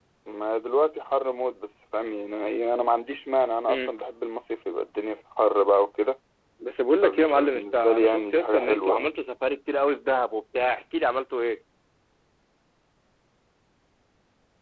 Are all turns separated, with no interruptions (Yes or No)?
No